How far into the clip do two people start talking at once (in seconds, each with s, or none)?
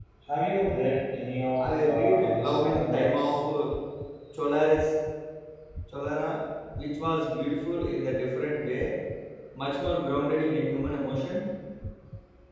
1.6 s